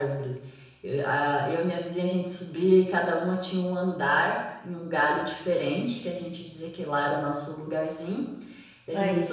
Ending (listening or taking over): listening